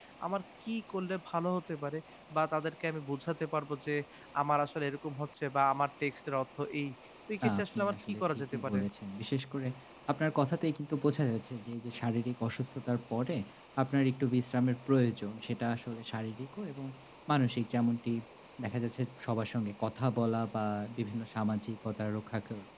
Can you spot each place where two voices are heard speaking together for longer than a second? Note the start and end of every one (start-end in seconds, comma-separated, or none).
7.4-8.8